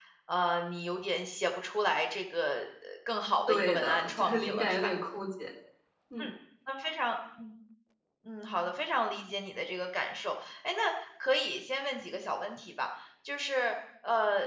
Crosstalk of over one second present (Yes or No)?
Yes